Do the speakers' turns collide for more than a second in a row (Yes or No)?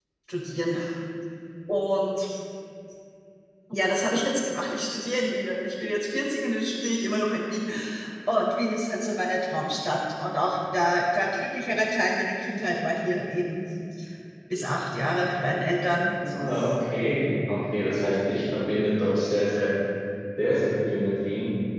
No